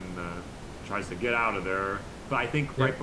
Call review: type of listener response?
listening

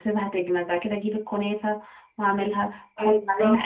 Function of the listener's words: listening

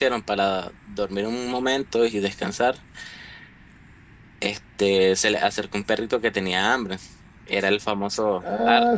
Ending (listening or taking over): taking over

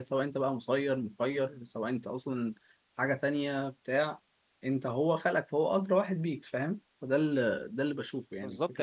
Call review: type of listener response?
taking over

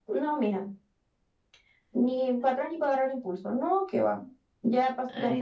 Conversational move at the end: listening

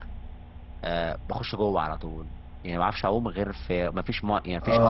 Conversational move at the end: taking over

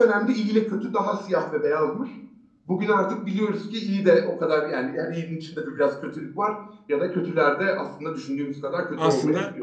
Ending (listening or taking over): taking over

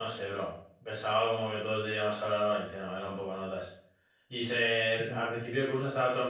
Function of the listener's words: listening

